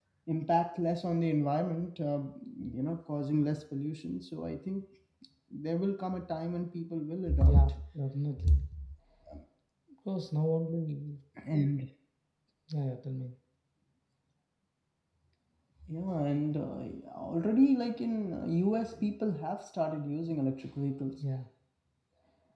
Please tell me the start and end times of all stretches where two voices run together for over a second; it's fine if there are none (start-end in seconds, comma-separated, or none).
none